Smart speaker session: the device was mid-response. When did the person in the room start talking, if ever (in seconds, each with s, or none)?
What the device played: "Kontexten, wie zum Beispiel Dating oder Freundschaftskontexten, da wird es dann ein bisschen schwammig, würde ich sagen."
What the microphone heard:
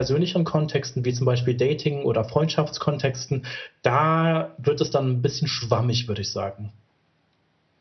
none